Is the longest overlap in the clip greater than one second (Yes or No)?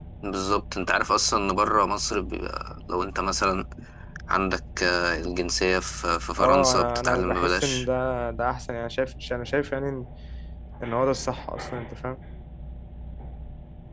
Yes